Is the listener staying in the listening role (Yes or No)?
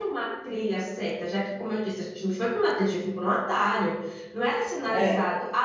Yes